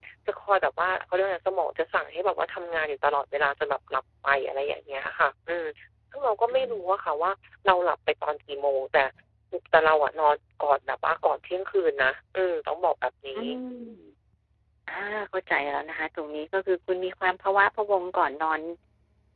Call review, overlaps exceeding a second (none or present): none